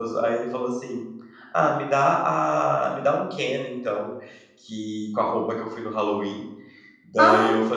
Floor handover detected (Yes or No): No